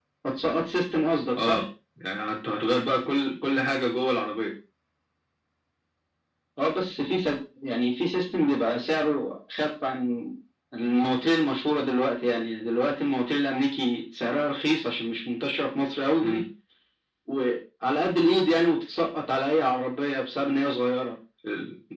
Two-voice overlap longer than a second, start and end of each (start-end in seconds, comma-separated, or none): none